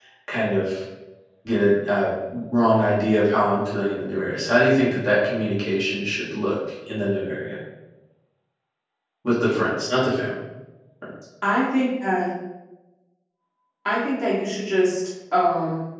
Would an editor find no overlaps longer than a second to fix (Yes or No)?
Yes